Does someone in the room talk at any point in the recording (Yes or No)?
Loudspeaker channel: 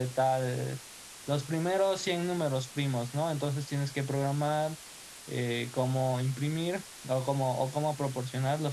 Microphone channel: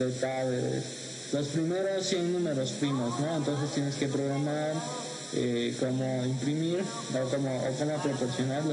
Yes